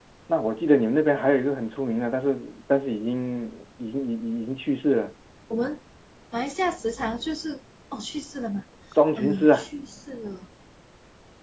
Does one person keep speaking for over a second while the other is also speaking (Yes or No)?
No